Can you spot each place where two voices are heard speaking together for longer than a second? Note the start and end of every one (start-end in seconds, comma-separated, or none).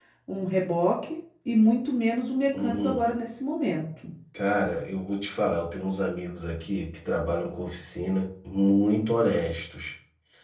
none